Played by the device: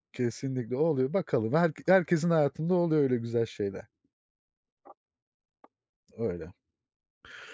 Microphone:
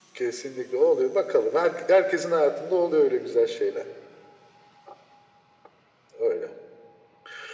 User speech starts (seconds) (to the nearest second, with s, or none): none